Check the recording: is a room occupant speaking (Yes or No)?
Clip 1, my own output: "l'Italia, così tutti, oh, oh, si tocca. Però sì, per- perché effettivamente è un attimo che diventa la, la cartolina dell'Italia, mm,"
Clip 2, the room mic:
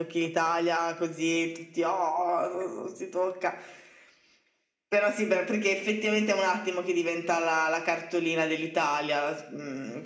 No